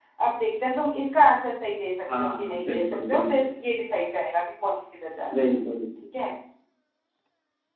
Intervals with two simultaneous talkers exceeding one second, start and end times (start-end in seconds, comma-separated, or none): 2.2-3.5